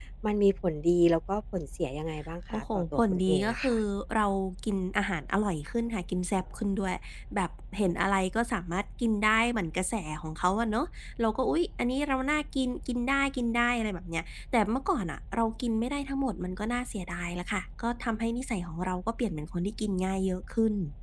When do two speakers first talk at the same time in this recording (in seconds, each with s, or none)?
2.5 s